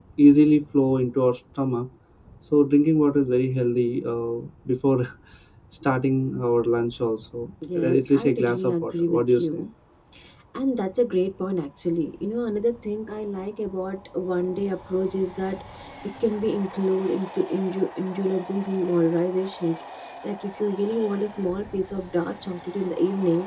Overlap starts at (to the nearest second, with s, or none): 8 s